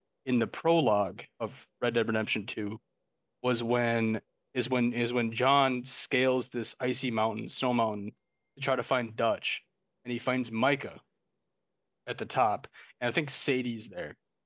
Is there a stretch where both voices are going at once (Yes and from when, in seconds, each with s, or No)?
No